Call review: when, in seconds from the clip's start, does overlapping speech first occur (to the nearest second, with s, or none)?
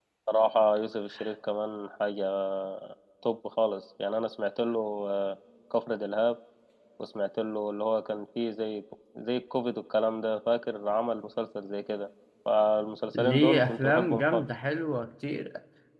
13 s